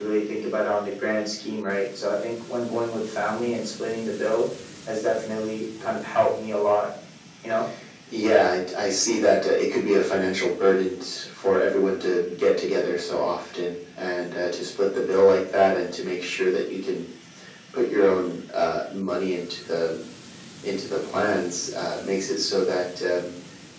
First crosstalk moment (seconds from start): none

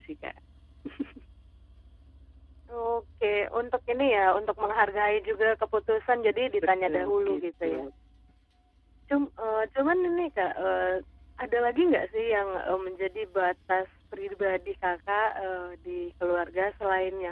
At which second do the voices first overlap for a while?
6.6 s

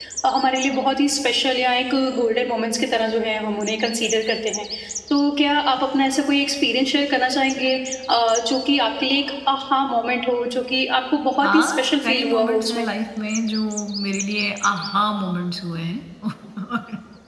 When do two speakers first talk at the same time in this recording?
11.4 s

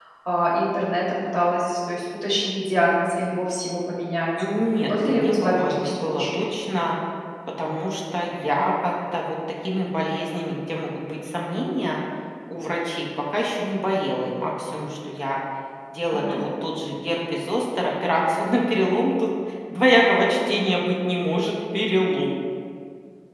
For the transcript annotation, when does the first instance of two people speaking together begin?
4.8 s

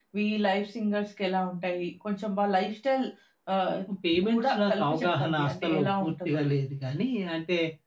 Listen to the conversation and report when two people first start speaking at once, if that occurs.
4.3 s

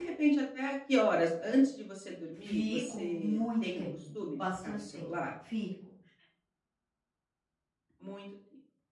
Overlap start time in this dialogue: 2.4 s

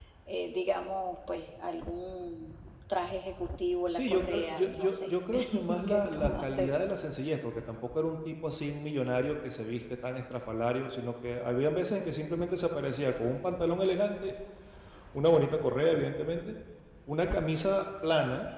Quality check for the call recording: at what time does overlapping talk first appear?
3.9 s

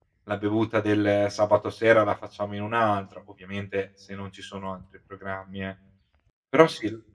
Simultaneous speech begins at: none

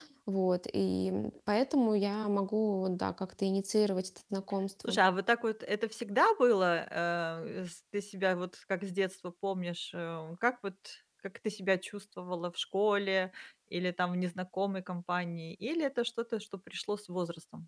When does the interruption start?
none

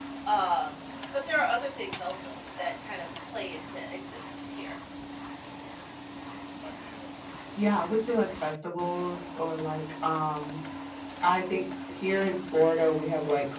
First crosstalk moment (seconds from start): none

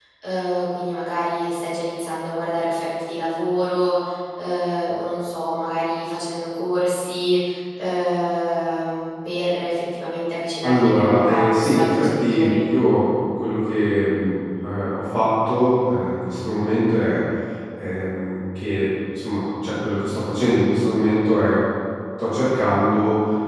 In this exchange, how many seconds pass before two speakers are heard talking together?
10.6 s

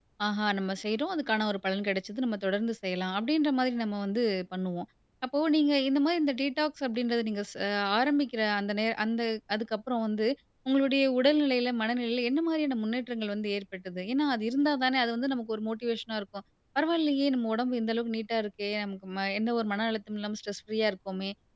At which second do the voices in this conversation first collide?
none

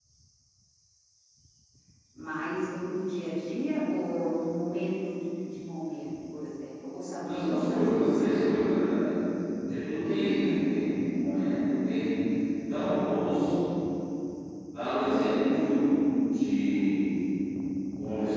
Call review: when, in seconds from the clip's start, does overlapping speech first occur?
7.2 s

